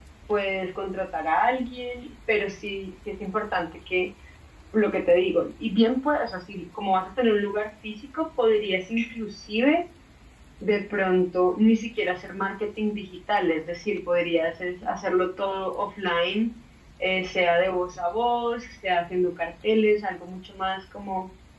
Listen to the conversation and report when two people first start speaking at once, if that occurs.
none

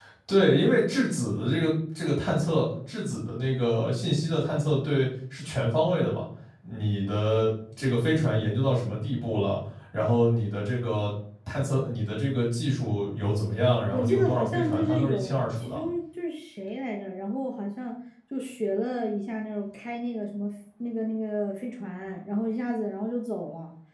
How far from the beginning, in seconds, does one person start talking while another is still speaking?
13.9 s

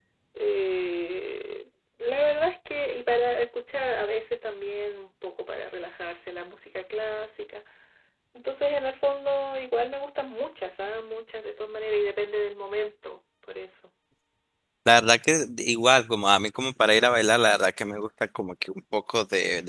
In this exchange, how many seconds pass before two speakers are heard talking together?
none

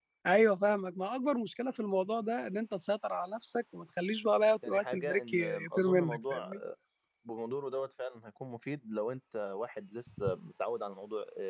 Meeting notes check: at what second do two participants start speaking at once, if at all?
4.6 s

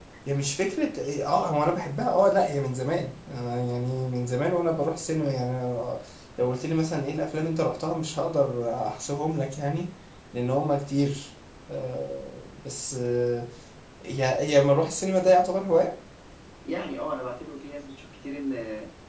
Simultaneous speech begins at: none

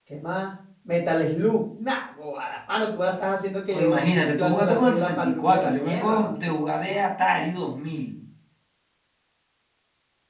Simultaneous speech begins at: 3.7 s

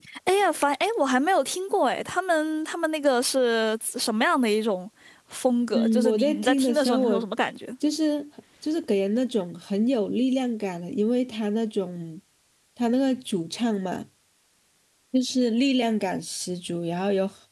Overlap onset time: 5.7 s

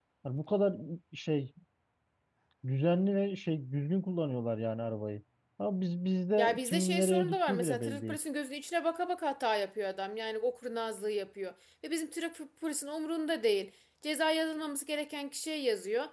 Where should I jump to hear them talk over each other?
6.4 s

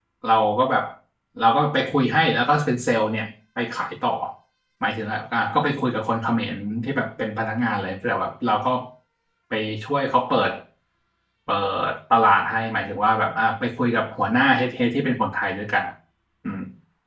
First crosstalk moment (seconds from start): none

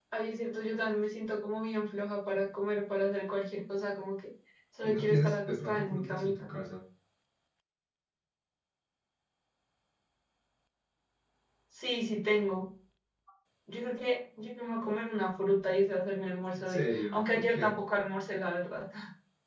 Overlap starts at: 4.8 s

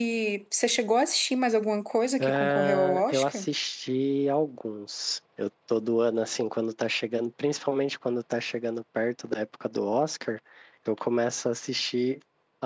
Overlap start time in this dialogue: 2.2 s

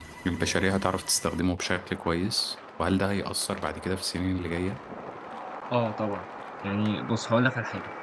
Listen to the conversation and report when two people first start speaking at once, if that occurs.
none

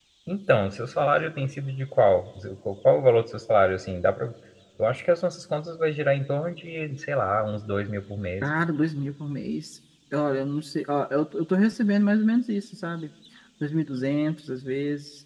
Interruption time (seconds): none

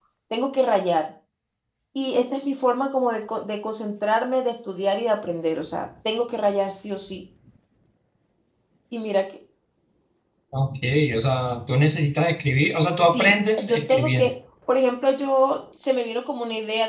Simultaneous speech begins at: 13.0 s

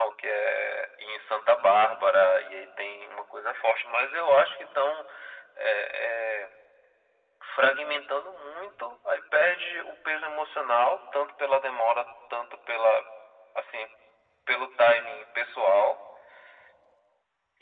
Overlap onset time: none

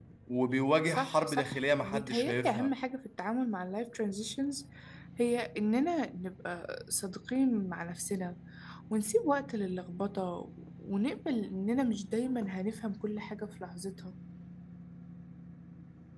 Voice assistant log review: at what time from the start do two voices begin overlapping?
0.9 s

